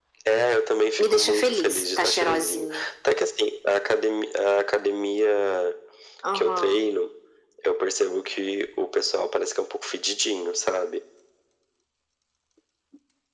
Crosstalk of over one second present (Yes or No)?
Yes